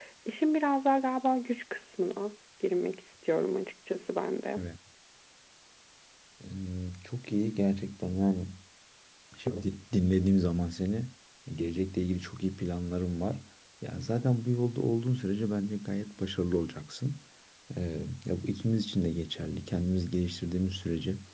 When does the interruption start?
none

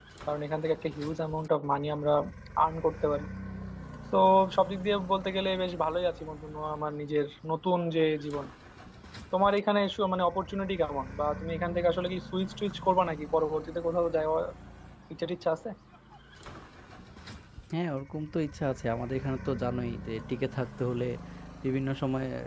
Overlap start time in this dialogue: none

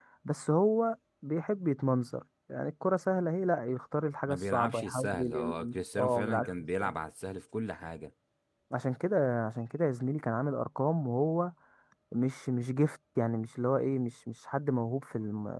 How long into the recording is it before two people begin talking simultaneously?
4.3 s

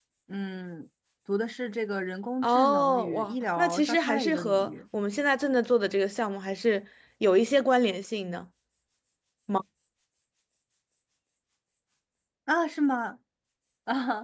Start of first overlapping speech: 2.4 s

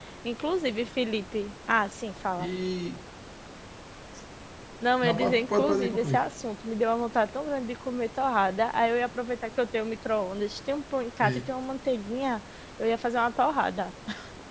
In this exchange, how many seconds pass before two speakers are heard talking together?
5.0 s

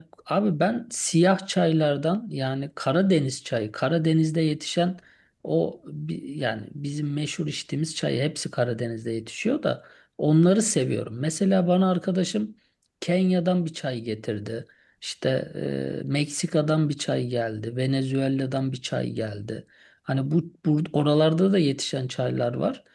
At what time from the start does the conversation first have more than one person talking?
none

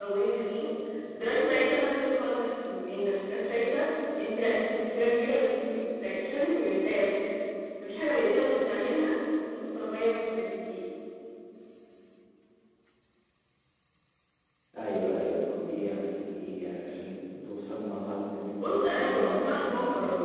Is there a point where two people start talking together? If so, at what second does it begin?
18.6 s

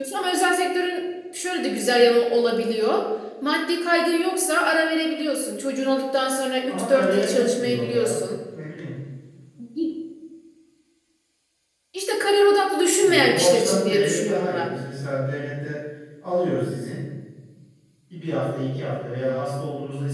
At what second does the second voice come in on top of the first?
6.7 s

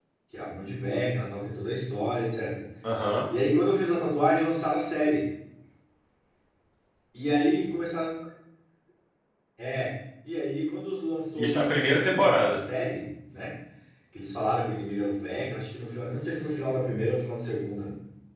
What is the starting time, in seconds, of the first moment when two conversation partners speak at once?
11.4 s

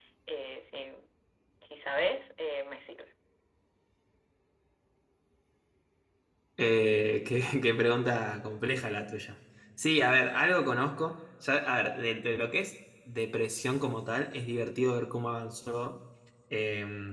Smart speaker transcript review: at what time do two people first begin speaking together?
none

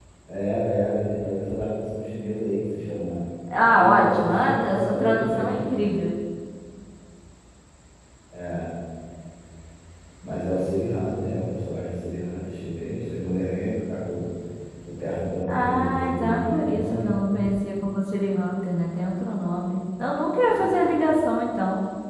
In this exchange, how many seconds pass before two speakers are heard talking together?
3.5 s

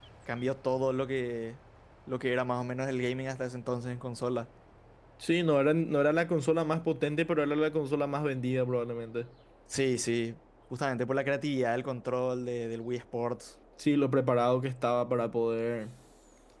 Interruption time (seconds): none

